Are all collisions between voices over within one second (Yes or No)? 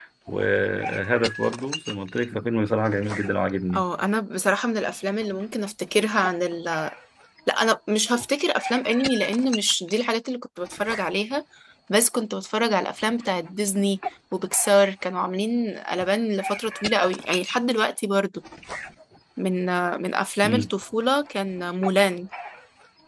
Yes